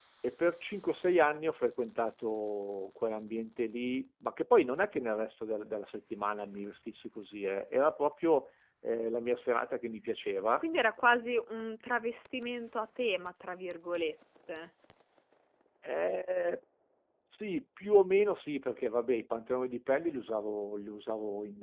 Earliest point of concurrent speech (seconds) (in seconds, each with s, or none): none